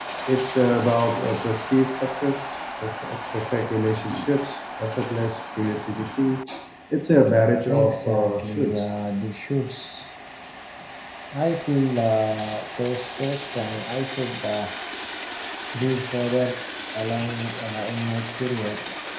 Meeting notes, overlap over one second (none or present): present